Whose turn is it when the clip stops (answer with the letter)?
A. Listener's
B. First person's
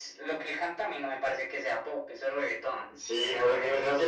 A